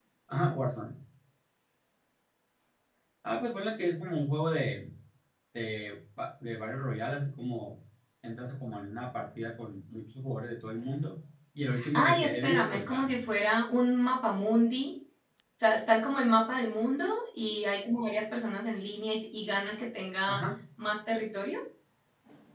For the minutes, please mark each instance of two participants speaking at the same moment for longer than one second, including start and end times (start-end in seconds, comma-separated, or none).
11.9-13.2